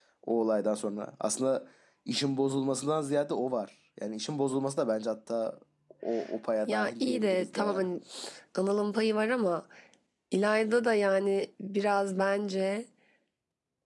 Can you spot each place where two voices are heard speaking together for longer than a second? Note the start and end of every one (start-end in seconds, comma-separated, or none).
6.7-7.9